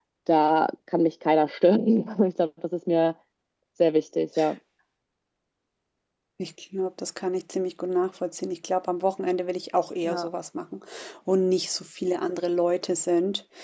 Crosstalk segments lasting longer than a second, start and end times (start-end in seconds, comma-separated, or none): none